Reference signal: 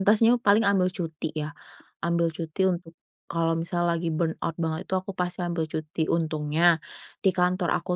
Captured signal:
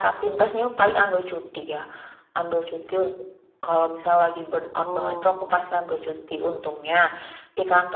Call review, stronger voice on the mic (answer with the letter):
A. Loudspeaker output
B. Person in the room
A